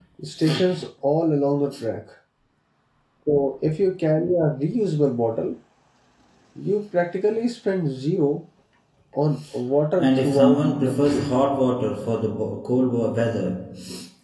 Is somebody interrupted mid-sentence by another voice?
Yes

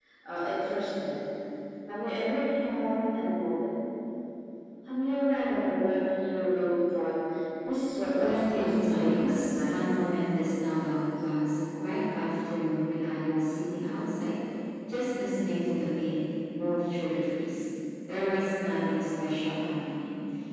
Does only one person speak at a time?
No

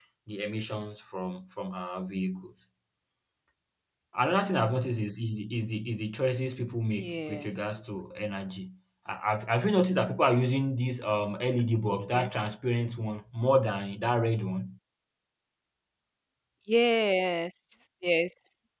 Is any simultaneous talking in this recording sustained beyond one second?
No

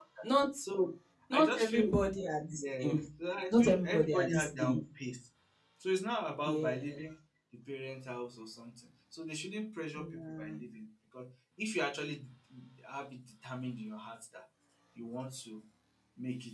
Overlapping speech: Yes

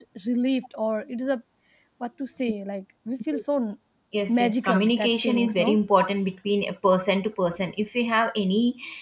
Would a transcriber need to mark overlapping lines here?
Yes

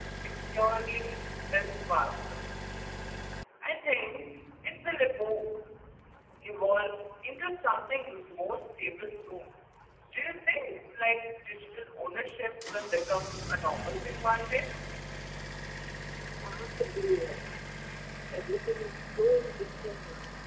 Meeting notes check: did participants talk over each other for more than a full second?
No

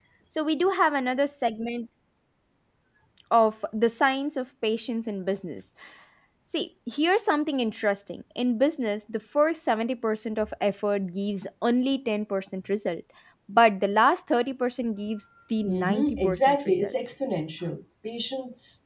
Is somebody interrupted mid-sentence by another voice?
Yes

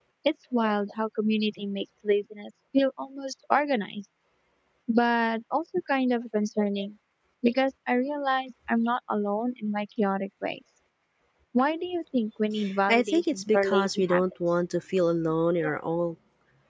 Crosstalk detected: Yes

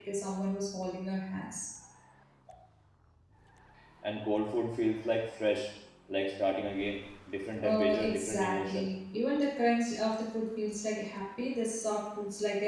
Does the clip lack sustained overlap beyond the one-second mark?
No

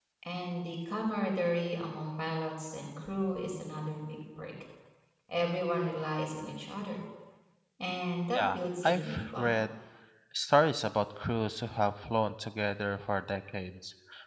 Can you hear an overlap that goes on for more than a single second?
Yes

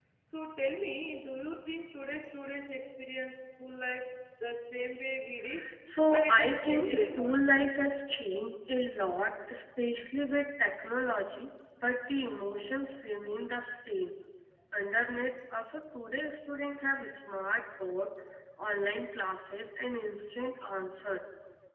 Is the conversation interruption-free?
No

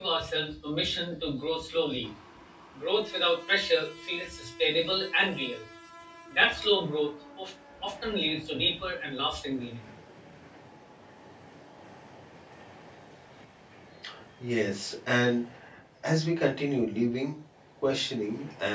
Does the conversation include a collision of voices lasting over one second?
No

